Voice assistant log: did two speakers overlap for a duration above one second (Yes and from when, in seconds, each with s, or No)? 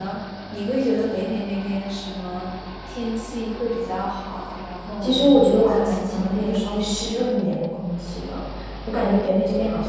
Yes, from 5.0 s